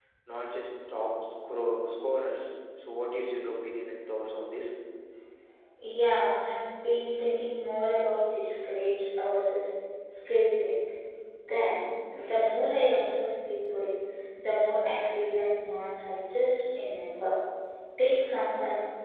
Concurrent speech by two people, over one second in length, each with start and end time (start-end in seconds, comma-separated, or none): none